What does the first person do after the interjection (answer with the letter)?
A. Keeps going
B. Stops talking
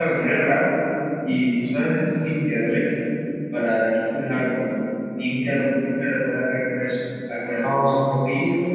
A